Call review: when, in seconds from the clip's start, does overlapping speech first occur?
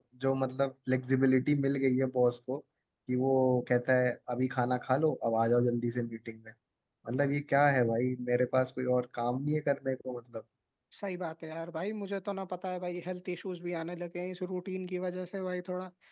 none

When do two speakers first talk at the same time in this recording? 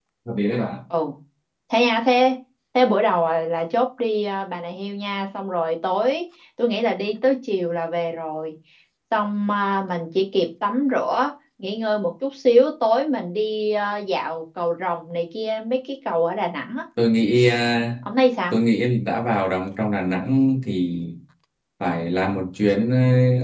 none

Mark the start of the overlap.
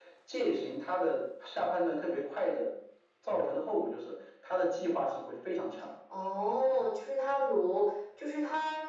none

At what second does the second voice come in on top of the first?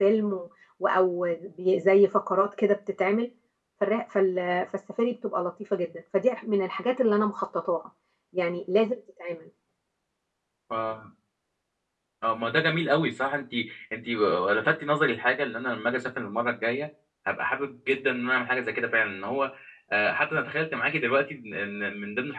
none

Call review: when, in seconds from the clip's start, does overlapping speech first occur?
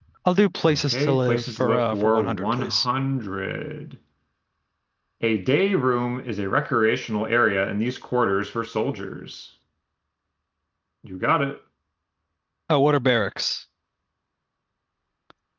1 s

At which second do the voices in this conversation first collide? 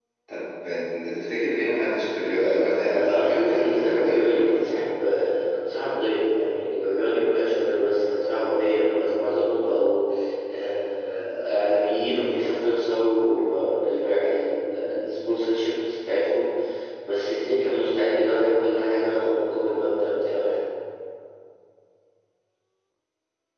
2 s

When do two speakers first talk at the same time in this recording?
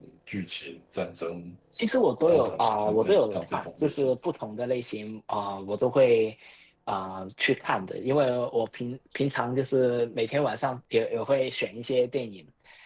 2 s

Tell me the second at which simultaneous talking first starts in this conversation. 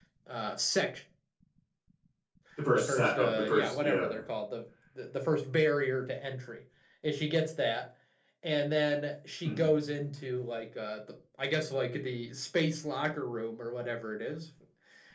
3 s

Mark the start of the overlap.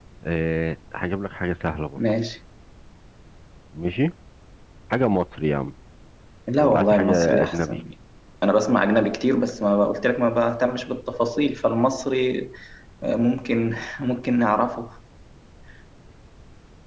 7 s

